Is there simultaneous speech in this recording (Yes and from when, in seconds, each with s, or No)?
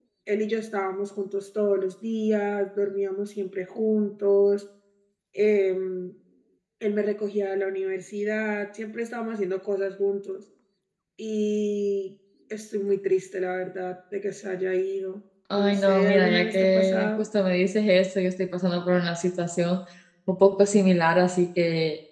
Yes, from 15.5 s